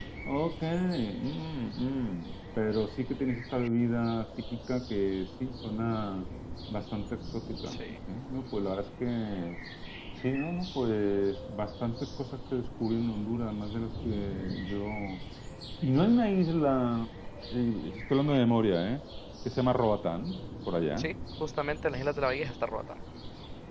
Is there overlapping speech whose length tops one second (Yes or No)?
No